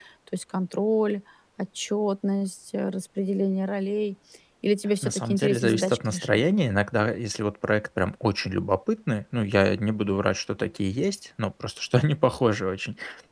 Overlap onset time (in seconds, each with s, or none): 5.0 s